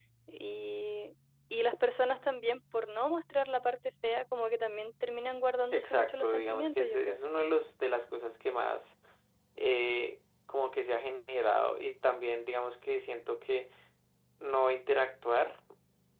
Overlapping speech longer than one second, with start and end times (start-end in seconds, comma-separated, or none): 5.7-7.2